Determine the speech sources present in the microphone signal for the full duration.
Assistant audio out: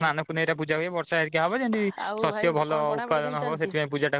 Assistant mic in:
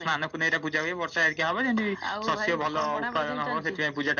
echo only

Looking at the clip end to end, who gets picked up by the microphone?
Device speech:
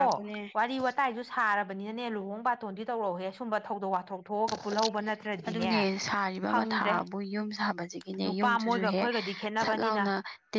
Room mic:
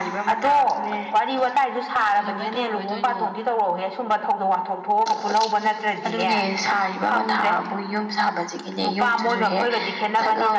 both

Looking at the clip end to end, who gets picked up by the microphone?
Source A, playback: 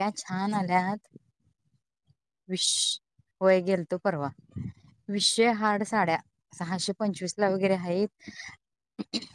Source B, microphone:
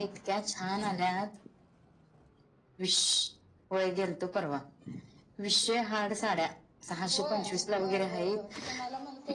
both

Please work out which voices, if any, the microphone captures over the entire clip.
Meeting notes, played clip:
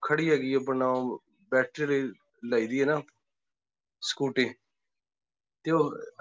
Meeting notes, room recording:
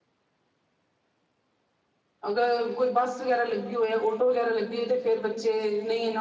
user only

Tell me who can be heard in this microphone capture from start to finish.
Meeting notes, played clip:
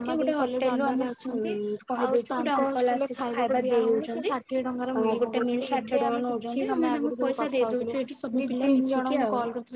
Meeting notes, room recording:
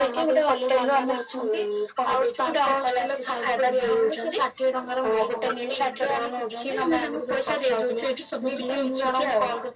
echo only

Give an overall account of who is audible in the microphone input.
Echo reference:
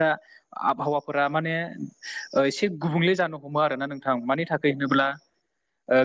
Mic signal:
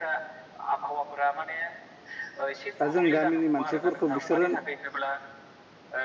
both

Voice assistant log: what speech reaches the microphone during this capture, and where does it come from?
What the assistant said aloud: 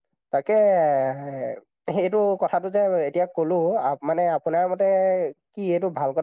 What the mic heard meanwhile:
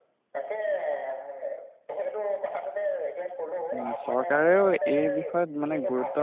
both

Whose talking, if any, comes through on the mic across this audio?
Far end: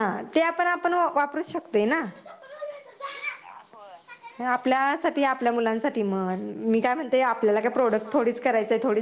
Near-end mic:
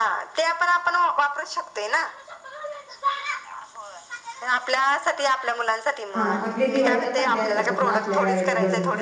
both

